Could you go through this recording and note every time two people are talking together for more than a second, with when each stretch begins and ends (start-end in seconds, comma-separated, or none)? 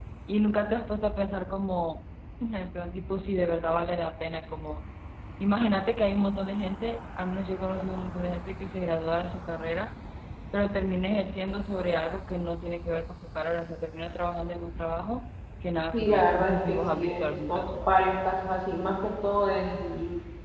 15.9-18.0